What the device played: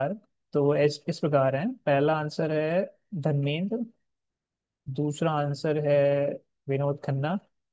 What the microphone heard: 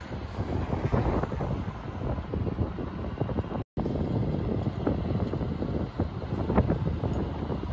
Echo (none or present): none